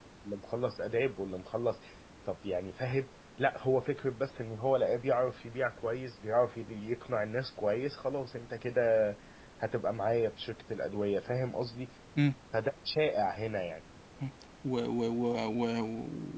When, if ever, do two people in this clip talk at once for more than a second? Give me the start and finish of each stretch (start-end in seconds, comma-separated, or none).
none